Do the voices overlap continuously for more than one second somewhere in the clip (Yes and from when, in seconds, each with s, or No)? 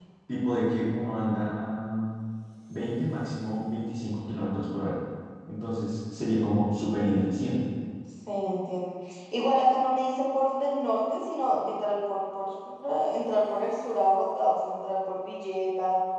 No